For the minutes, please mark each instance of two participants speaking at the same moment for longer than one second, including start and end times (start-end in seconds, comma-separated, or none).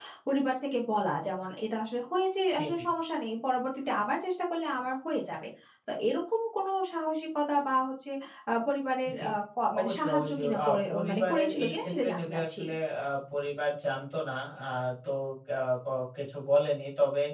9.8-12.6